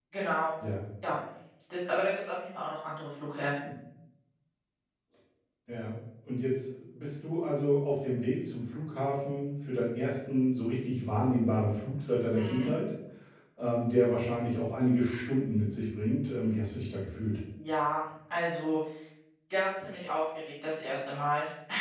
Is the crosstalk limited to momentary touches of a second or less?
Yes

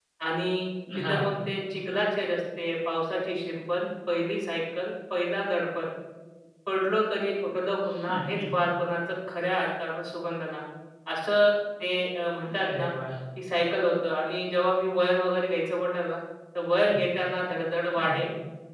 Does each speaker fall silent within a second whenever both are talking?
Yes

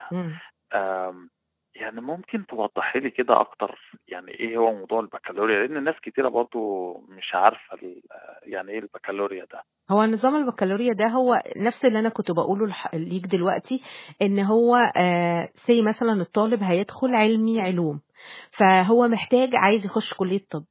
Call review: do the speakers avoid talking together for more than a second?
Yes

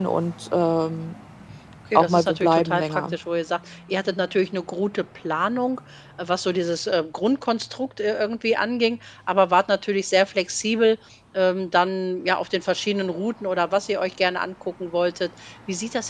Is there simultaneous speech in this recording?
Yes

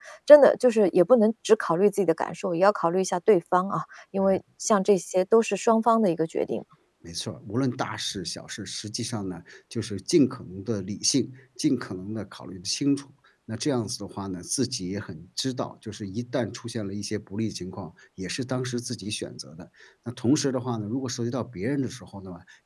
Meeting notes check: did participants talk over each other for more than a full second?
No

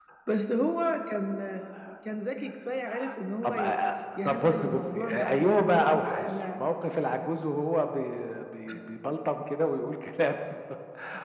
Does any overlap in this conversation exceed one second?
Yes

